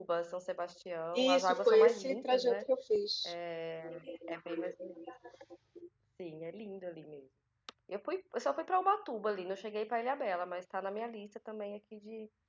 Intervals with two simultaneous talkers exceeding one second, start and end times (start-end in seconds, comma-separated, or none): 1.1-2.6